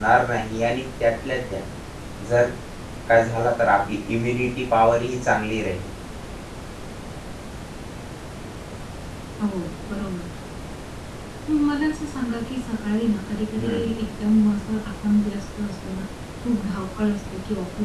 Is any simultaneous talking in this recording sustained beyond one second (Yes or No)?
No